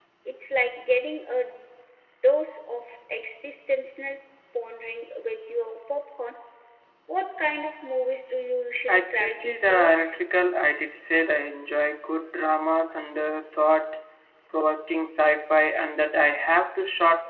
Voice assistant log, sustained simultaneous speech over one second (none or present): present